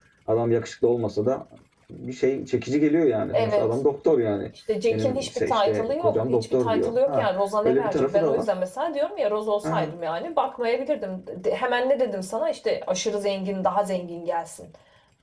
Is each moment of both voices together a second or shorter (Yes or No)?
No